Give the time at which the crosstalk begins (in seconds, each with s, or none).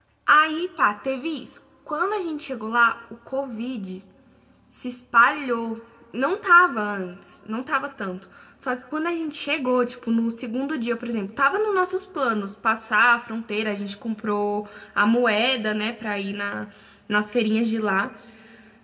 none